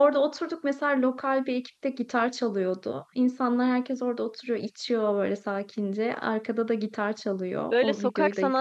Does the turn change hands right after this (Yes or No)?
Yes